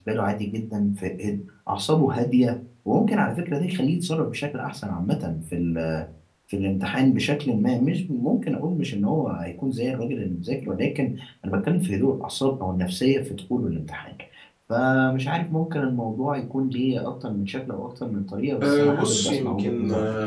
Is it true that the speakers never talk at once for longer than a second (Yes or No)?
No